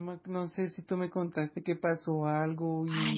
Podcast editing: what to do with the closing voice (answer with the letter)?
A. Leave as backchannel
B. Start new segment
B